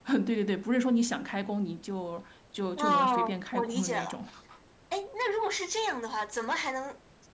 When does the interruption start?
3 s

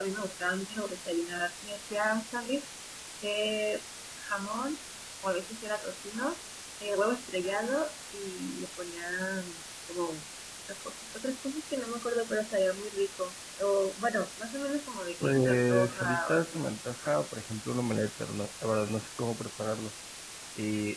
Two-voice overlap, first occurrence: 15 s

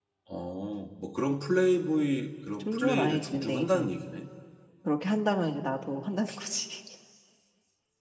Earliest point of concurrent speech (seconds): 3 s

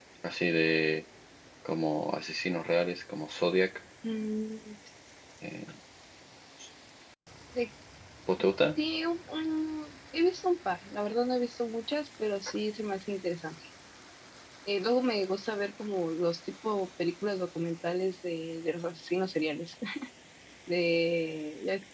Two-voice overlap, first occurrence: none

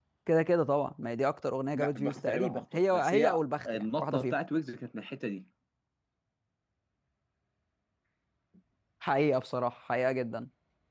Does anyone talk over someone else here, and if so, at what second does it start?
2 s

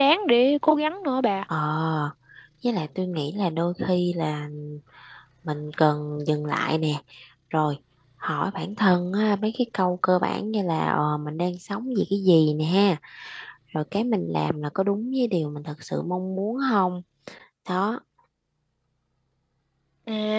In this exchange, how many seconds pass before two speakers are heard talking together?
none

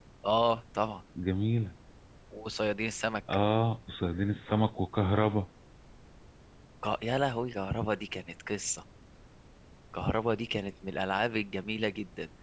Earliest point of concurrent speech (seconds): none

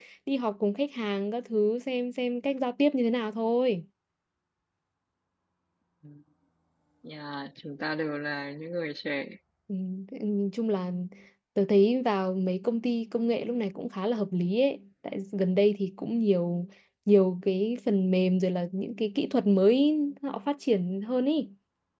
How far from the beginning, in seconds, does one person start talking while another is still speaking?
none

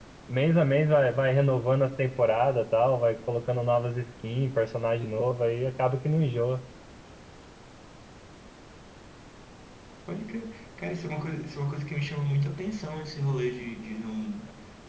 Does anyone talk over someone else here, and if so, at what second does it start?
none

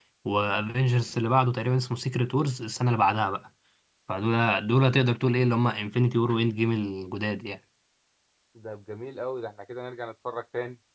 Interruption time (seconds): none

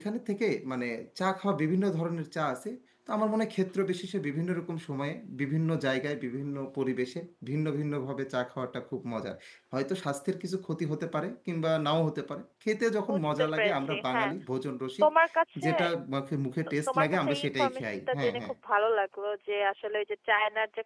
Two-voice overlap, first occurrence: 13 s

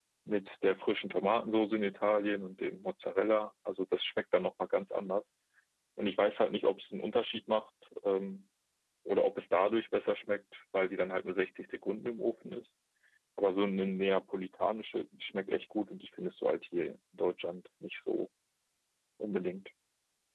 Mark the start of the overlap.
none

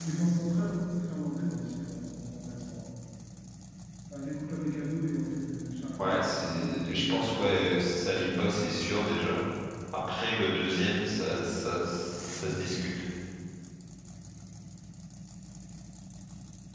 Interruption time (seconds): 6 s

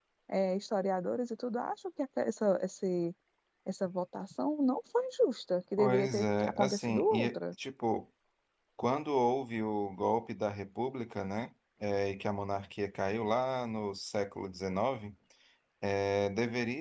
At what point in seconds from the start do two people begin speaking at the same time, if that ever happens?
6 s

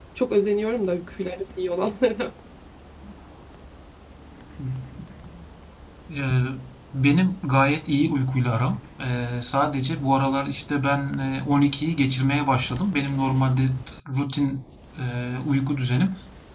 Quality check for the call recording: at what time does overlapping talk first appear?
none

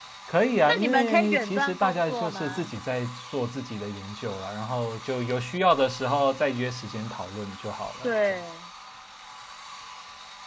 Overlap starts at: 1 s

